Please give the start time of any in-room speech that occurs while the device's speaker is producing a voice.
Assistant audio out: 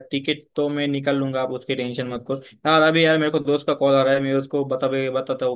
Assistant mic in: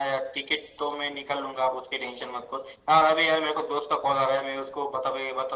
none

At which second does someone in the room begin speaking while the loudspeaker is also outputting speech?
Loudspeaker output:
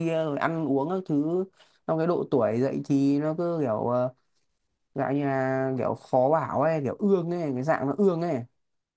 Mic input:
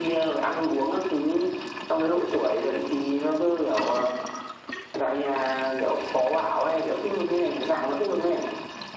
none

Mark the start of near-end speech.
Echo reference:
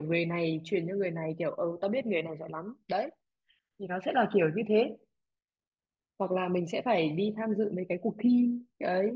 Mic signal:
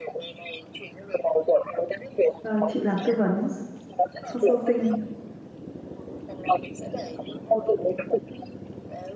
2.4 s

